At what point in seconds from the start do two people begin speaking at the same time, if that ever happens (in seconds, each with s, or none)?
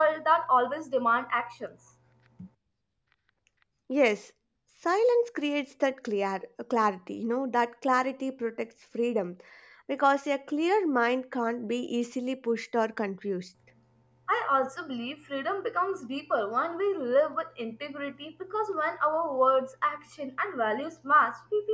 none